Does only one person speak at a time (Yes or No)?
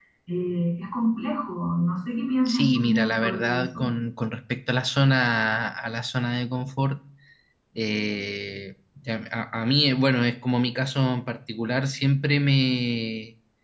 No